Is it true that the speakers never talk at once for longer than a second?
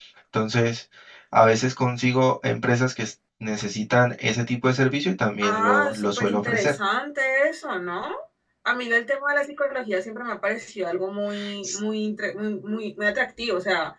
No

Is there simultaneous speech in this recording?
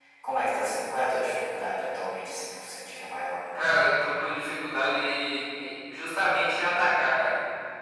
No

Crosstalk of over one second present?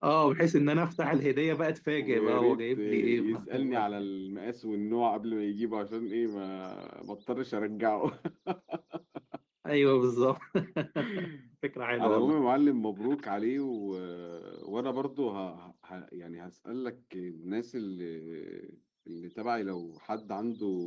Yes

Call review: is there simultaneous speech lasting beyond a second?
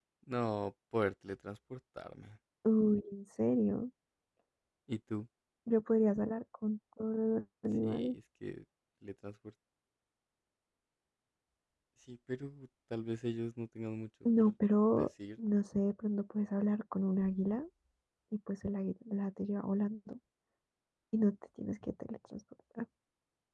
No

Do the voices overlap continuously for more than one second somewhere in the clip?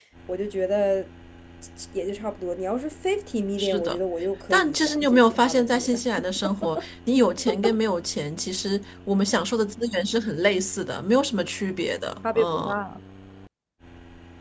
Yes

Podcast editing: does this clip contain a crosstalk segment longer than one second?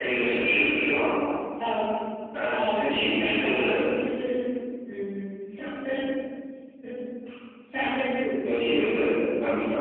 Yes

